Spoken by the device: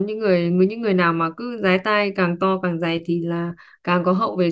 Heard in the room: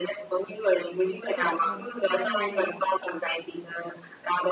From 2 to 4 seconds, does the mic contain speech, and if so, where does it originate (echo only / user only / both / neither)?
both